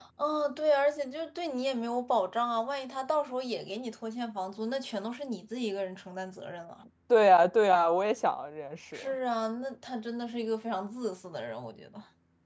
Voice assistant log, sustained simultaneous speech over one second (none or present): none